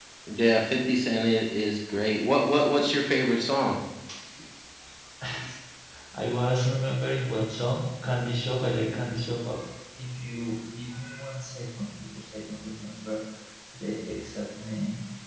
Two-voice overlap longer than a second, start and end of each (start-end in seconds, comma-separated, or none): none